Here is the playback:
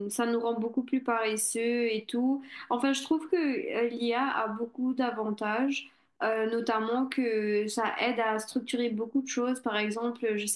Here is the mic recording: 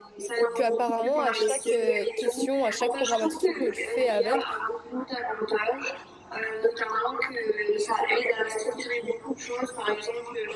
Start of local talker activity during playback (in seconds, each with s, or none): 0.5 s